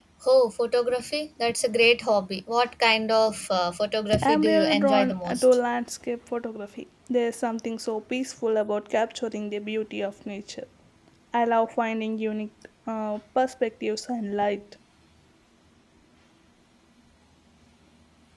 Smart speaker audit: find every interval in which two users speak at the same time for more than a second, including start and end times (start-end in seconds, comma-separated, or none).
4.2-5.5